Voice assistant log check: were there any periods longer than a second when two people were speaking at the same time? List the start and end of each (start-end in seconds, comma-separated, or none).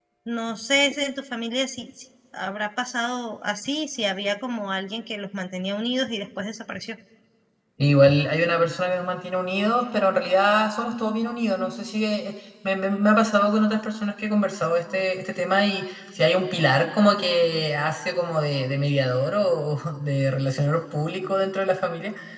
none